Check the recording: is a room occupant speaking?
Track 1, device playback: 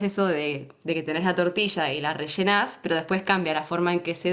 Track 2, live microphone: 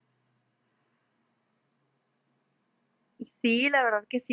Yes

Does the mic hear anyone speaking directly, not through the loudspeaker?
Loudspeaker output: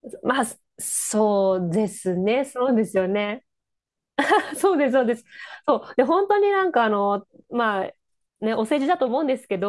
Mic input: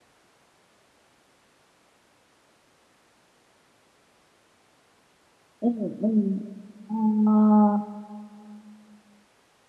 Yes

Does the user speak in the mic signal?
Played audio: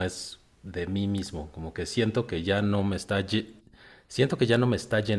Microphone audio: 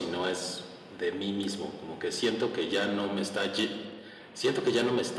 No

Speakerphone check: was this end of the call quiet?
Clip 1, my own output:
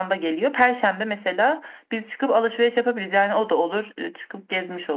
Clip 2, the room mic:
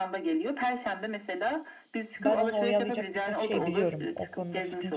No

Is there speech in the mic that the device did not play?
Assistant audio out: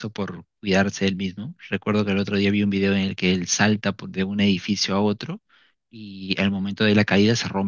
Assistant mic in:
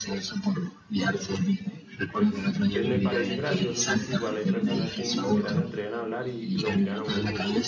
Yes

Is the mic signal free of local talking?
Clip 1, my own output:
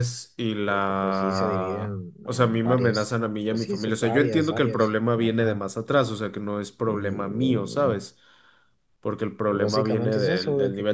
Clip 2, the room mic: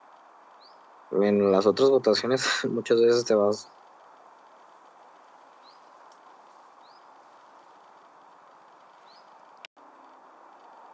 No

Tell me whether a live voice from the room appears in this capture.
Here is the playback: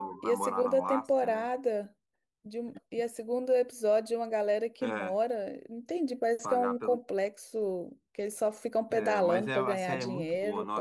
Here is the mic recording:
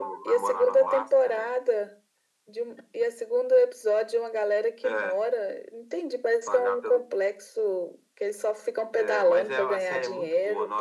No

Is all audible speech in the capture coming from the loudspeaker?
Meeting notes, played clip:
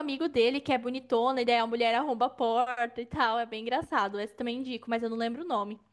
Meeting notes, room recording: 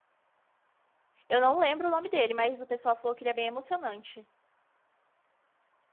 No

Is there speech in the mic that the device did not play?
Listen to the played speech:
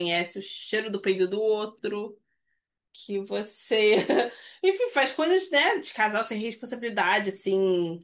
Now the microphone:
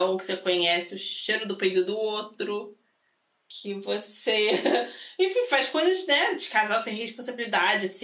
No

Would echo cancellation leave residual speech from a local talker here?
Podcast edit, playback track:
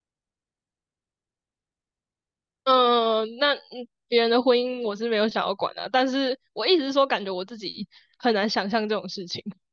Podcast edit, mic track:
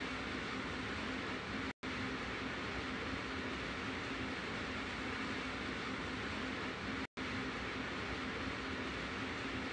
No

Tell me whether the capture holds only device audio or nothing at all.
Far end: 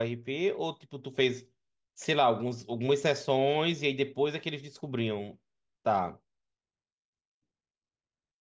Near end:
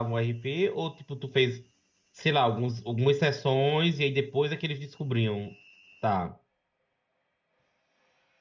Yes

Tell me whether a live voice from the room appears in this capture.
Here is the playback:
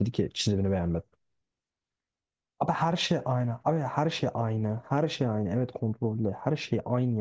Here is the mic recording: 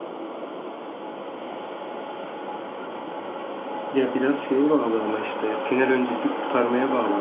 Yes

